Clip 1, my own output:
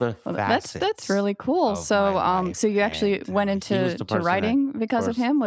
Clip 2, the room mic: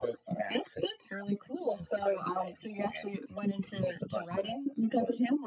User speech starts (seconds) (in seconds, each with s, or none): none